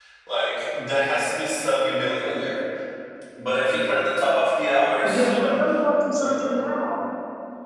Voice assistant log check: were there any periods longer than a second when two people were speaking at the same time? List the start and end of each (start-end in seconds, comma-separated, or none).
none